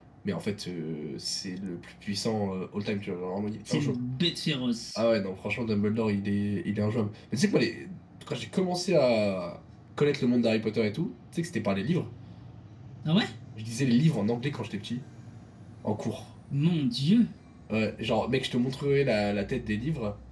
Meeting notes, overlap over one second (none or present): none